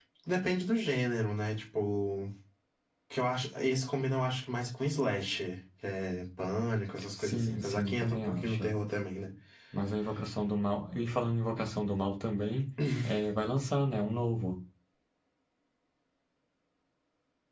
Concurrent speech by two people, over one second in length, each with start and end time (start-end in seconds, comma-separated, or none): 7.2-8.7